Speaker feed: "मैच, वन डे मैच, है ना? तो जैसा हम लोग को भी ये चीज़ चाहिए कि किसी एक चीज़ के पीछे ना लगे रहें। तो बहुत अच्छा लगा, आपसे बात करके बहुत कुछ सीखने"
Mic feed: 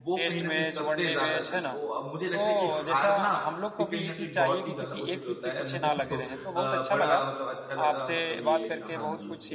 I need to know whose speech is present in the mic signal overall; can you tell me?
both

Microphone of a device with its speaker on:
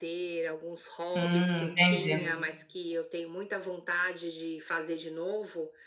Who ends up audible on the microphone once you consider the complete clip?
both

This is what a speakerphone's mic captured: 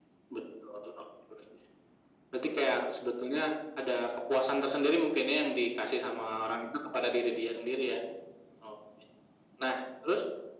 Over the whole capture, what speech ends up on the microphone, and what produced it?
echo only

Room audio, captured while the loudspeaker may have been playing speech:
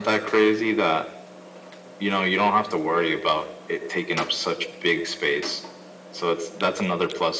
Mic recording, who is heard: echo only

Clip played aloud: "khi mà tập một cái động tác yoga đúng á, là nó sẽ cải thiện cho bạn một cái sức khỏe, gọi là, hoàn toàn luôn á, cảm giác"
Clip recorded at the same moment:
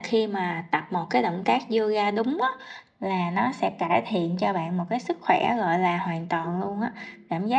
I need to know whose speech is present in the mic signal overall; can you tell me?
both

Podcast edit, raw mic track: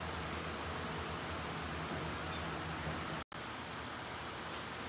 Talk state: neither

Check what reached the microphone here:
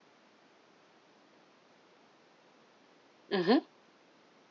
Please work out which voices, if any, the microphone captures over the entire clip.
user only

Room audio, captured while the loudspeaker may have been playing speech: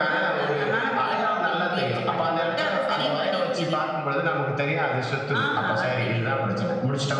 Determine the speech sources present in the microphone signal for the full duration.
echo only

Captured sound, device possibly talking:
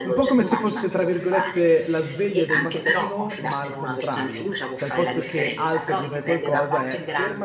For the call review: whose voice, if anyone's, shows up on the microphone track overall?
both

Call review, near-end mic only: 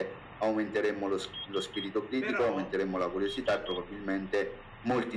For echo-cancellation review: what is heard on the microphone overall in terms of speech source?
both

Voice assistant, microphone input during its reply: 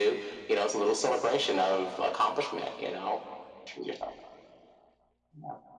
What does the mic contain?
echo only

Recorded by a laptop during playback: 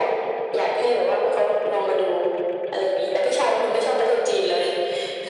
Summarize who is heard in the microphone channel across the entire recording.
echo only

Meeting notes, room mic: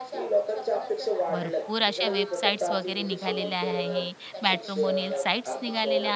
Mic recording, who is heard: both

